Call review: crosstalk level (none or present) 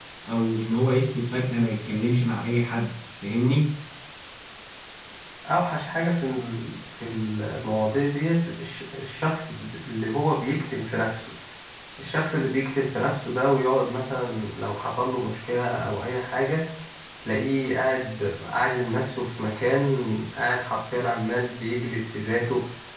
none